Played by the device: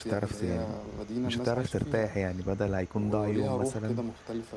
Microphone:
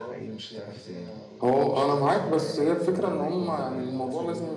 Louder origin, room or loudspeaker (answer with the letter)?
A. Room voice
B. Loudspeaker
A